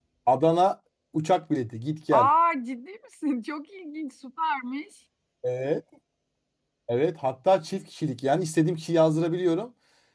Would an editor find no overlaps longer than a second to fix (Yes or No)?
Yes